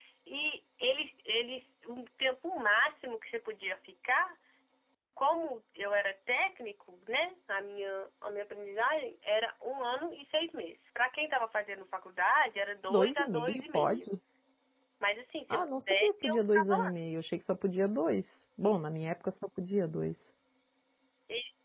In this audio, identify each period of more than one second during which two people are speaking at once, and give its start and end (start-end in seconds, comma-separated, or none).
12.9-14.1, 15.5-17.0